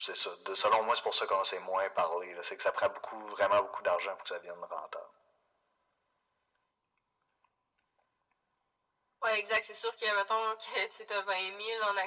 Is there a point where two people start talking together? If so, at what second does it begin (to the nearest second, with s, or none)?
none